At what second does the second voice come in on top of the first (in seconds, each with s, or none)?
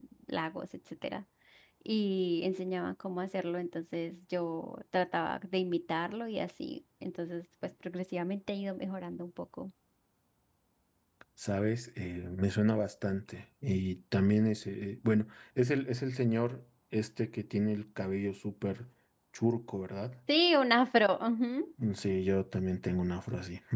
none